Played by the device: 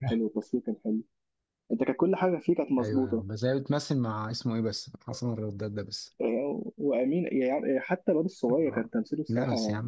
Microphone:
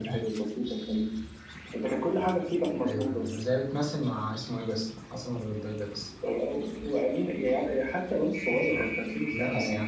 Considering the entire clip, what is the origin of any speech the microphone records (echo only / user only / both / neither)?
echo only